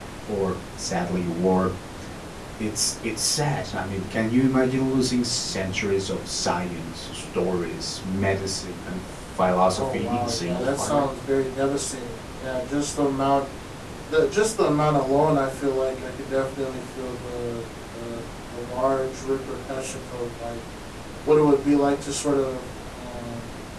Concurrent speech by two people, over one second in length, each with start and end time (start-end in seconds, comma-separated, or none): 9.7-11.0